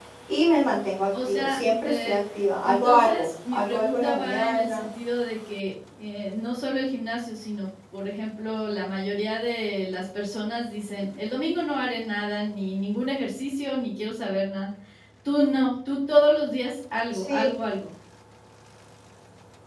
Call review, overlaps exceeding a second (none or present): present